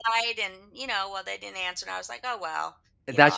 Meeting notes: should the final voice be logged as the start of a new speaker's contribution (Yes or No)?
Yes